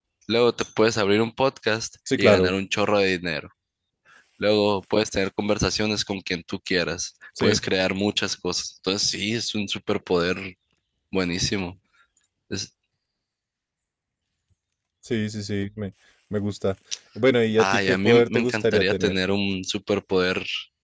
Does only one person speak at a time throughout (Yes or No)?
No